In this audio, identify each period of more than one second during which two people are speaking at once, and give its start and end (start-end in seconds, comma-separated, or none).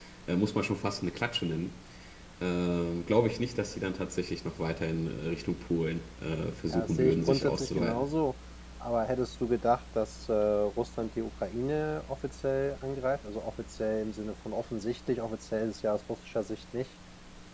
6.7-8.0